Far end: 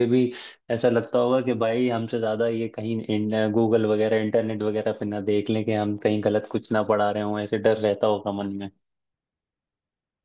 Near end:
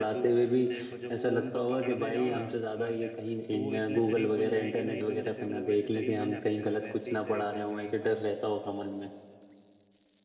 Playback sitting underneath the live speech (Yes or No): No